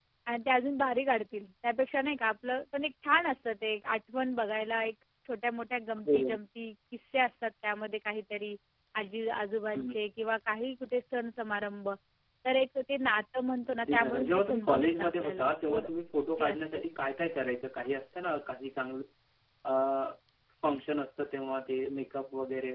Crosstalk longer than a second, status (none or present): present